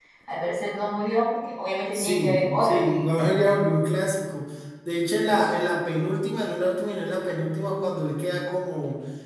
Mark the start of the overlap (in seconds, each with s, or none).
1.9 s